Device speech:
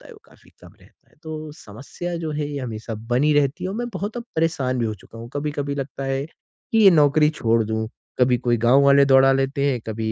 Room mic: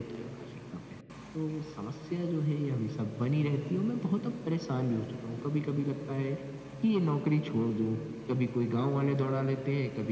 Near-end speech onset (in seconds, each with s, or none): none